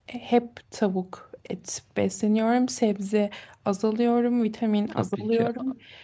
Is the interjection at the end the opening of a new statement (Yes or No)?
Yes